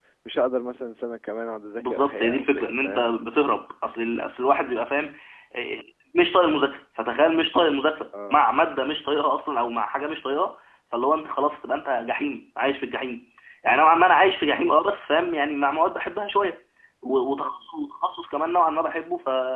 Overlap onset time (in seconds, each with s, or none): 1.8 s